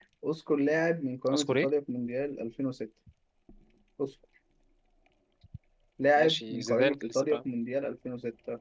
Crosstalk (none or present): present